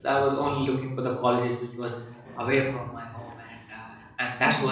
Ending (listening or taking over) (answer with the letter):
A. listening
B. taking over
B